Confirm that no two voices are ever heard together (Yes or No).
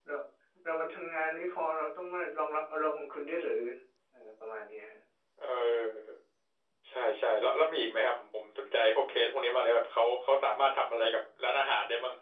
Yes